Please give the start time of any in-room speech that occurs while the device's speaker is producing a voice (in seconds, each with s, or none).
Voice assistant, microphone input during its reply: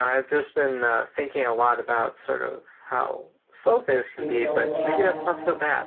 4.2 s